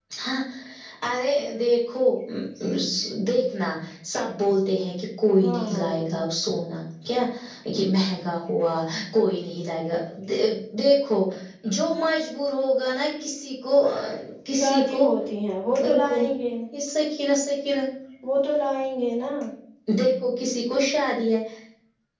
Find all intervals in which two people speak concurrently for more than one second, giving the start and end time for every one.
none

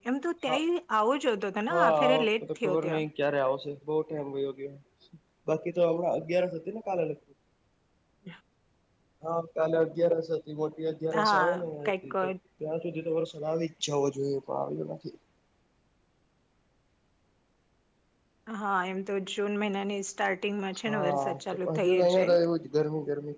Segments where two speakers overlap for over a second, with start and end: 1.7-3.0, 20.9-22.4

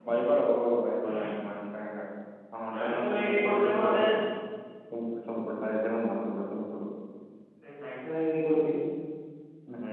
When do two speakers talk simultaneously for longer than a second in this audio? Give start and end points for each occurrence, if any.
2.7-3.9

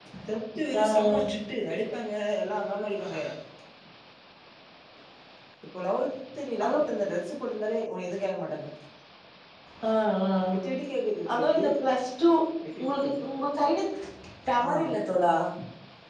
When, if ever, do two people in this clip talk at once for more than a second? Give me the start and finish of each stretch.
none

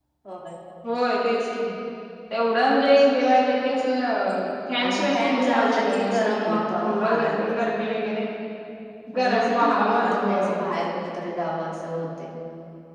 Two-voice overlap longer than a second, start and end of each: 4.8-7.5, 9.2-10.5

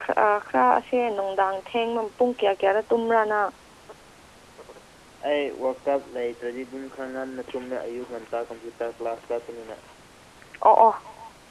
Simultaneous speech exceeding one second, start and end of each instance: none

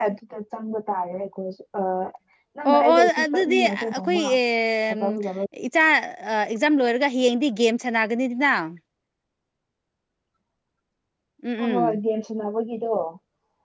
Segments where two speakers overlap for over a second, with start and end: 2.7-4.2

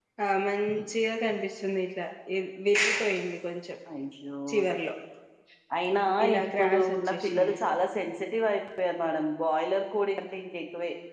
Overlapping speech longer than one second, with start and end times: 6.3-7.6

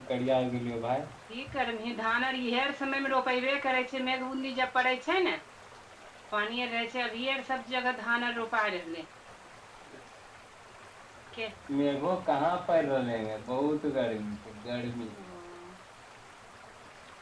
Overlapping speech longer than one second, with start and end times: none

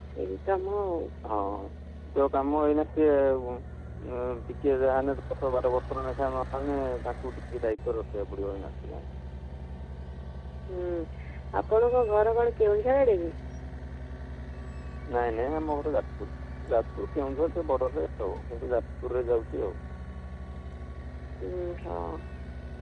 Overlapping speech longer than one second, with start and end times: none

